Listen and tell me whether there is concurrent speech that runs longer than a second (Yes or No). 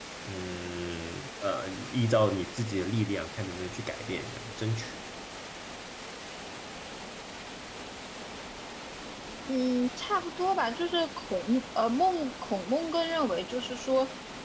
No